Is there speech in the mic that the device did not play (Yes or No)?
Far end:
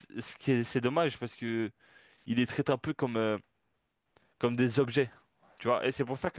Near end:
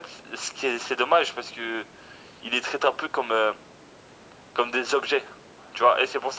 No